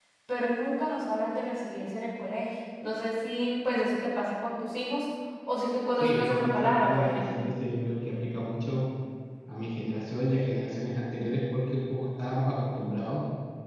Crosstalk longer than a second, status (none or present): present